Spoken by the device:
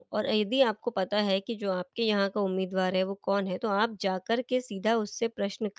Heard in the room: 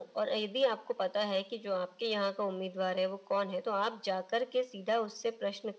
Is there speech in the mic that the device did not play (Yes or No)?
No